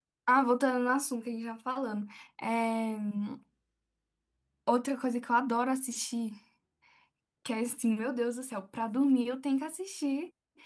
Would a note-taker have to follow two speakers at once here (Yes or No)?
No